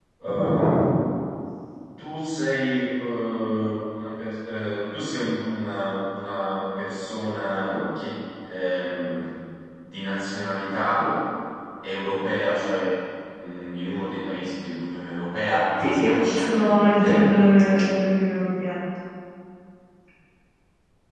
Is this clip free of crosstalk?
No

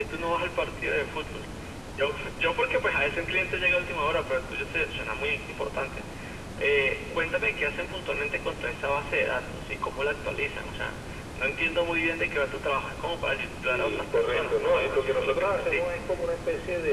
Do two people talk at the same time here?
Yes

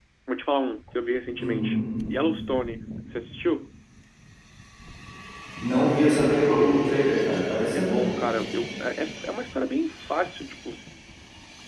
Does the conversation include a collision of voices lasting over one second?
No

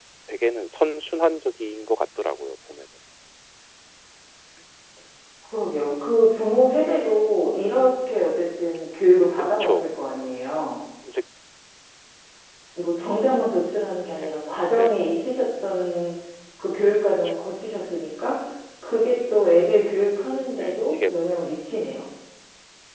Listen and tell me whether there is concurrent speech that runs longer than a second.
No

